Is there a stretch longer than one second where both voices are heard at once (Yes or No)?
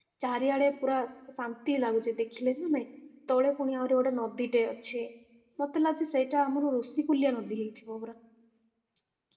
No